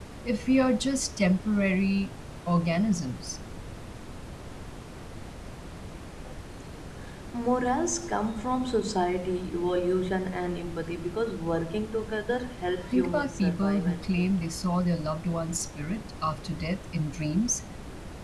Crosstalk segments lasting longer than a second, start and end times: 12.9-14.3

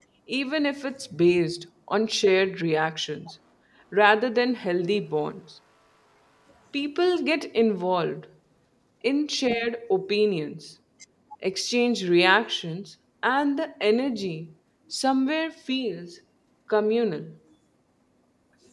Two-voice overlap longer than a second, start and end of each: none

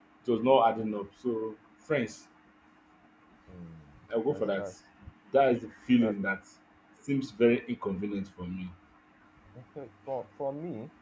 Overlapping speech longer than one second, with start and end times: none

